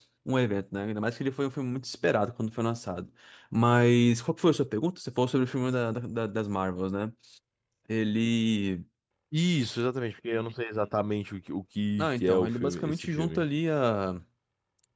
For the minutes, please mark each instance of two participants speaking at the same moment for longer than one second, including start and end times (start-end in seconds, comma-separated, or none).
12.0-13.4